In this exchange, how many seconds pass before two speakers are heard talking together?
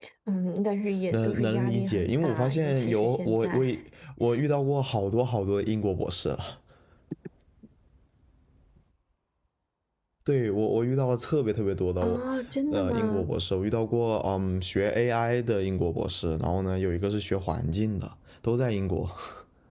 1.1 s

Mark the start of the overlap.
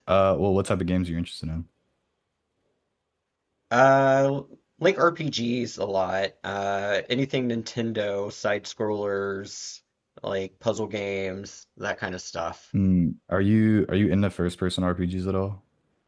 none

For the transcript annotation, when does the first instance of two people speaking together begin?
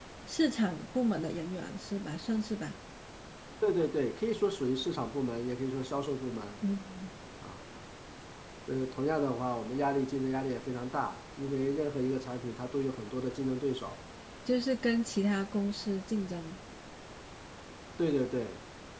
none

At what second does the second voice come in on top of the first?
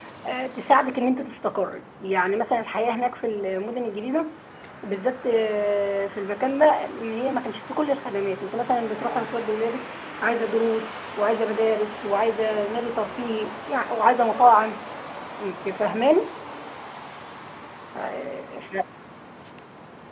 none

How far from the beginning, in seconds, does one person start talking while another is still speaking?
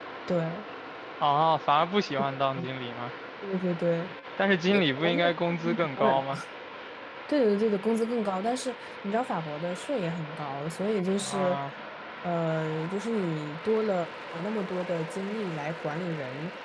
4.7 s

